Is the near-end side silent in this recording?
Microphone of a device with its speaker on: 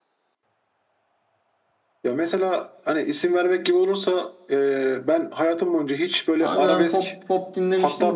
No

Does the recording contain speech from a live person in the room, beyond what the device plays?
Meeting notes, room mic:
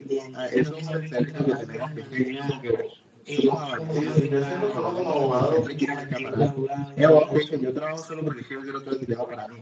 Yes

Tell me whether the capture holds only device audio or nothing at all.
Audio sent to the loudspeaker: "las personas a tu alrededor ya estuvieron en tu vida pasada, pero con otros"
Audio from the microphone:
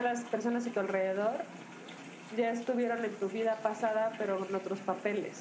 Yes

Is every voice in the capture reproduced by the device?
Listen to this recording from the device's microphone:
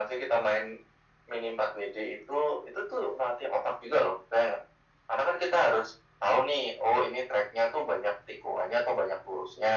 Yes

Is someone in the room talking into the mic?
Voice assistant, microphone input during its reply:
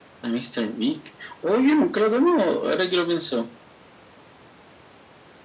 No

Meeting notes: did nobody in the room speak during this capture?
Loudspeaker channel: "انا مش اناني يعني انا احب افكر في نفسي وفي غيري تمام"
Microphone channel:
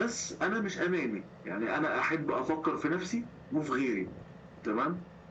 Yes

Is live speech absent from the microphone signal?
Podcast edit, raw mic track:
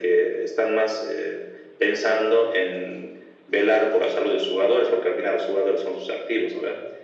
Yes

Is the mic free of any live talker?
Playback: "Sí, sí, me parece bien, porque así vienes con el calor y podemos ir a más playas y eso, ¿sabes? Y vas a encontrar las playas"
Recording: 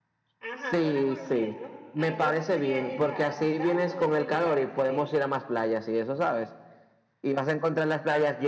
No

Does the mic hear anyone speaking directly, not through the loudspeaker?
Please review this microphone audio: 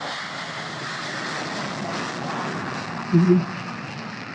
Yes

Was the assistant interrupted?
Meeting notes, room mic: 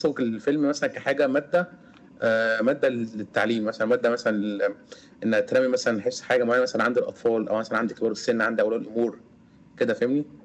No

